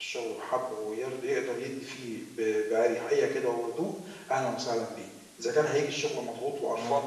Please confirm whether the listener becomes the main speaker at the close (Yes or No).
No